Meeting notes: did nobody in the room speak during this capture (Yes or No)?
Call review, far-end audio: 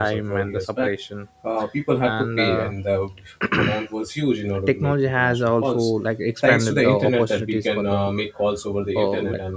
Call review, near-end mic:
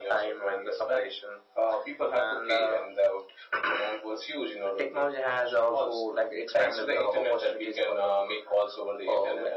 Yes